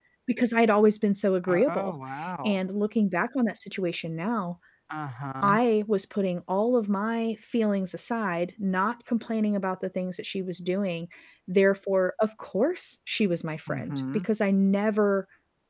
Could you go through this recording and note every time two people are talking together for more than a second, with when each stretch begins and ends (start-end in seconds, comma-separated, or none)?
none